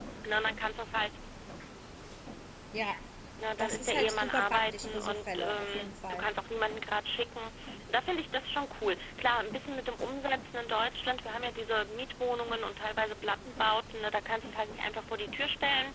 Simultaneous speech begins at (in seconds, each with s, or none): 3.6 s